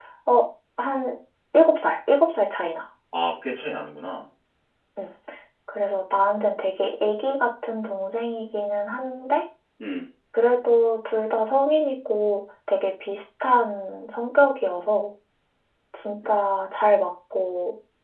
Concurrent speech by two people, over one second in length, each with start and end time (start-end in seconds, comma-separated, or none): none